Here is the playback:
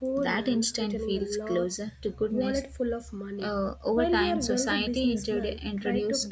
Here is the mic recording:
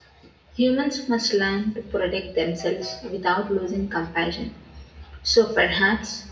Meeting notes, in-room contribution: present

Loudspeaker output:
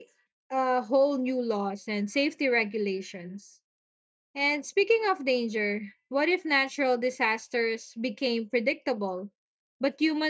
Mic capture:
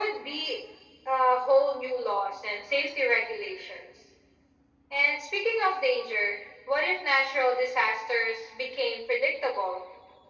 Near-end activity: none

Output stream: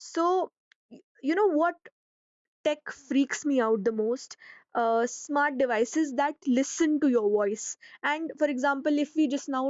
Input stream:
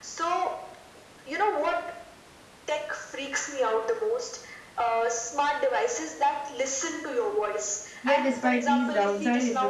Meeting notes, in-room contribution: present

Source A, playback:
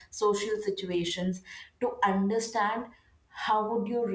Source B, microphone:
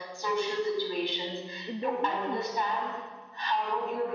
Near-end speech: present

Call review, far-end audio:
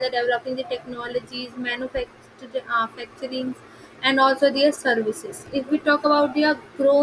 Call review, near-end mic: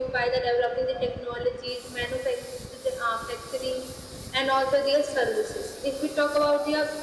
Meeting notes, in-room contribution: none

